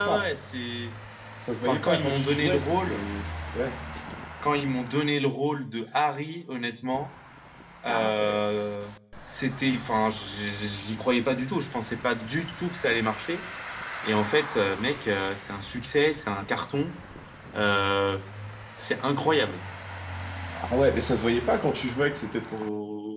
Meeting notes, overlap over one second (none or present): present